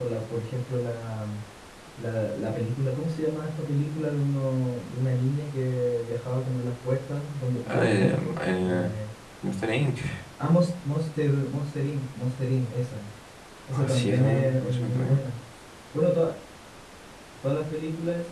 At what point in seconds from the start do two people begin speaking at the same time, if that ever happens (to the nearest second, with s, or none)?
8 s